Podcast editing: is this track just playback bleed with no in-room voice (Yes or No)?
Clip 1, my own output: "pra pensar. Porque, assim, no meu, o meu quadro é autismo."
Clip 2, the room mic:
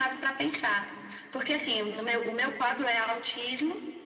Yes